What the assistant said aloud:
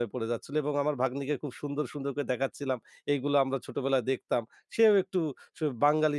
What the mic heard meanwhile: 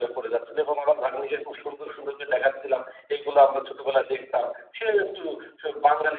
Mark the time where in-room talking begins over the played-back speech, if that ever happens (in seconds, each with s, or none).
none